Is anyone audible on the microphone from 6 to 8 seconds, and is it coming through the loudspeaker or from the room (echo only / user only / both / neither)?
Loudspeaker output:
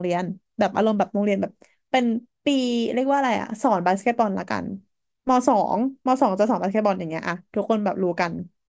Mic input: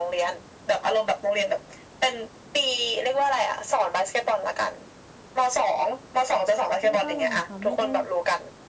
both